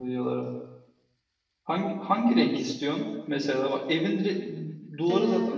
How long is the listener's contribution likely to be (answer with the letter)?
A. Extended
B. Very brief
B